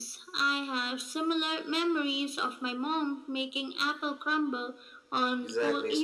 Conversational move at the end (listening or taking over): taking over